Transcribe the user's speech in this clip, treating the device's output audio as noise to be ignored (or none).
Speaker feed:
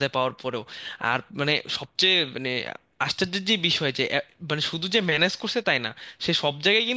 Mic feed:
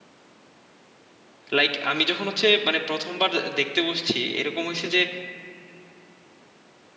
লাইক আমি যখন হচ্ছে মানে প্রথমবার দেখতে বসছি এরকম হয়েছে যে